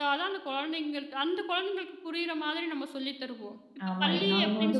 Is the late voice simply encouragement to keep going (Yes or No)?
No